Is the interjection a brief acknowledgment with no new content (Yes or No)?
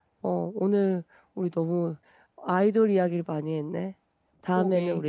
Yes